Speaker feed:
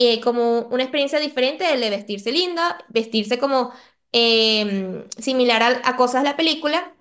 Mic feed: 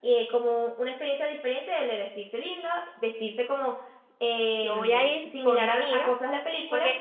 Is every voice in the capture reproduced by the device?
No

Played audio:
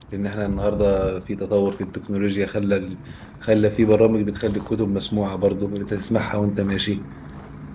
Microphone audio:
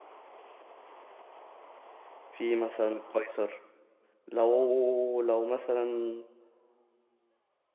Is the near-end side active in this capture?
Yes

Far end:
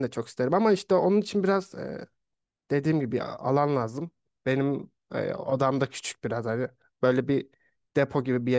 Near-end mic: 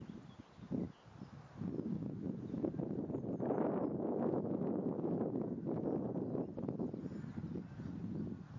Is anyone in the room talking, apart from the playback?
No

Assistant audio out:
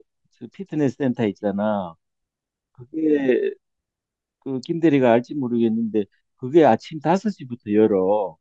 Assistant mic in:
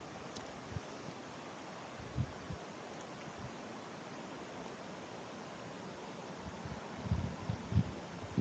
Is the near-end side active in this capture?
No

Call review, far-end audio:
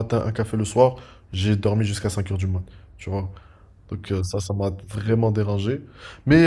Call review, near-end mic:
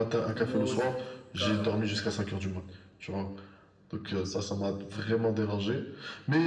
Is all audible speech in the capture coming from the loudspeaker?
No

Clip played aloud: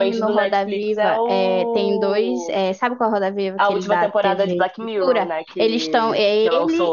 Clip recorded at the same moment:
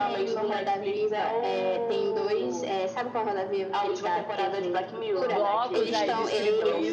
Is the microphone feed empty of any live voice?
No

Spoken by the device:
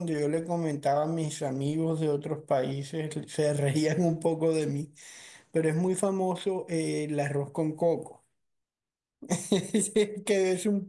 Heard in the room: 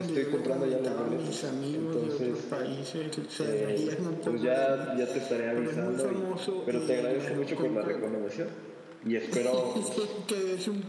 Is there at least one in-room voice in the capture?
Yes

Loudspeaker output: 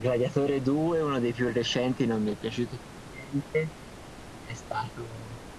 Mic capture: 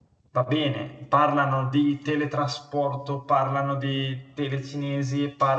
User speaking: Yes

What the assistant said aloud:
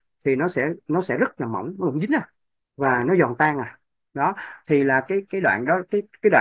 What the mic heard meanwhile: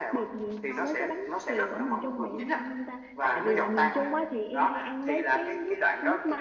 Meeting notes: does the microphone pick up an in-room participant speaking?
Yes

